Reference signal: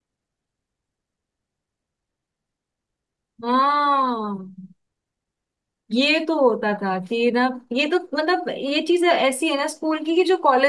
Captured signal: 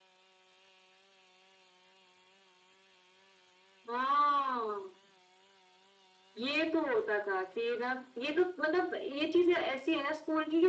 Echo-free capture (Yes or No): No